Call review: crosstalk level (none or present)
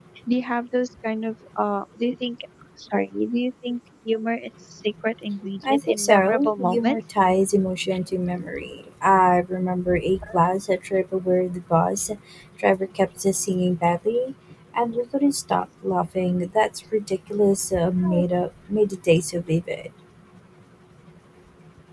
present